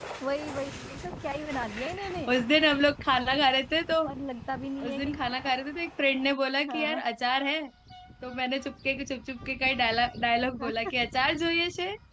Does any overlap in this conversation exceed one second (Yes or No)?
No